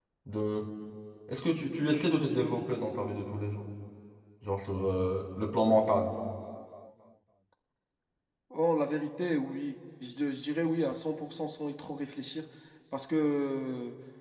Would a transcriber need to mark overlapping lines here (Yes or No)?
No